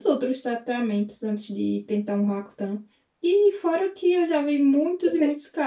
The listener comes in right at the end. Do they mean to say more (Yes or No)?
No